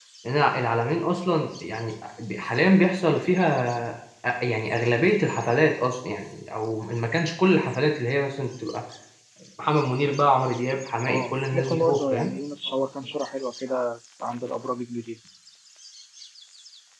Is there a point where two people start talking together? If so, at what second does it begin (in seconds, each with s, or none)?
11.0 s